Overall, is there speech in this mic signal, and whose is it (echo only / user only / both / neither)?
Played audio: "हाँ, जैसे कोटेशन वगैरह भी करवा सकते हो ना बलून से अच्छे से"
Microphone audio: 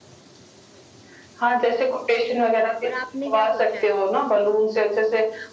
both